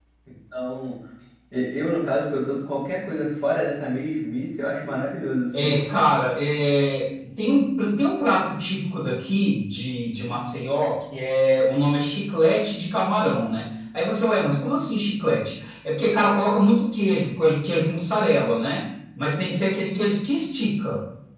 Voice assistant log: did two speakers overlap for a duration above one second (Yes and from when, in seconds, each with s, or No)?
No